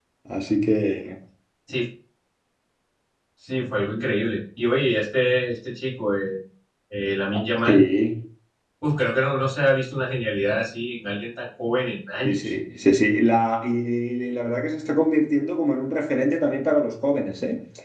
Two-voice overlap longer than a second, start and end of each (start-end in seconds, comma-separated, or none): none